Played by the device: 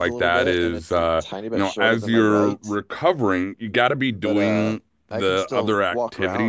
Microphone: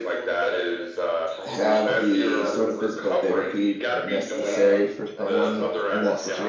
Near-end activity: present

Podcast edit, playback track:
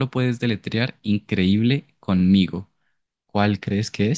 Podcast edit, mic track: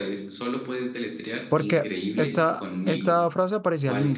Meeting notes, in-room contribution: present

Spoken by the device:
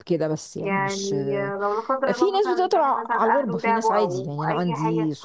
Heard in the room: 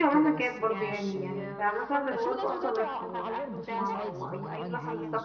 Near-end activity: present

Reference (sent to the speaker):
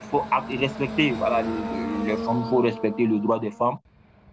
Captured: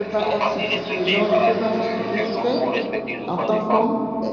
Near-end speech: present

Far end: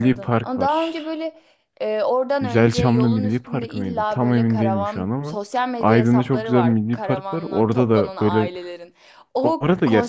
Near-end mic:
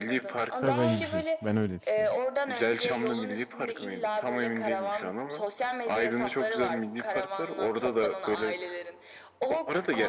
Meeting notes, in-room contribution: present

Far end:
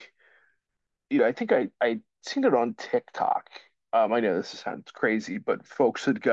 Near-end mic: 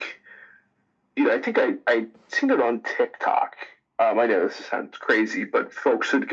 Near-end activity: none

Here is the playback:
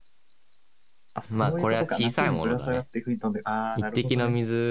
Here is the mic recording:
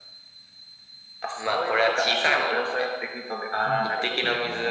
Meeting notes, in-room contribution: present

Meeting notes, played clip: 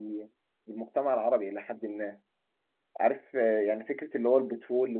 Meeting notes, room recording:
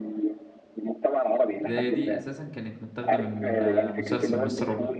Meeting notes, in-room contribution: present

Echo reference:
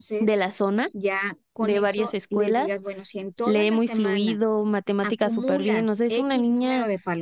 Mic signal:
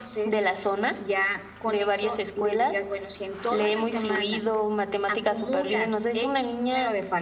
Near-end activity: none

